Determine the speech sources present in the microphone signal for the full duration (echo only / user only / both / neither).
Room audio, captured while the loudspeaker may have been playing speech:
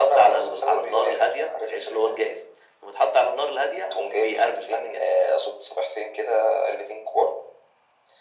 echo only